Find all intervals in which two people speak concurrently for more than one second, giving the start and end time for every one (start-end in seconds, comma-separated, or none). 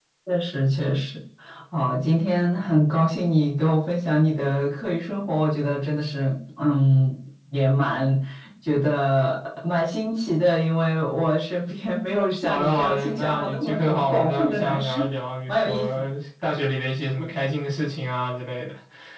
12.5-15.1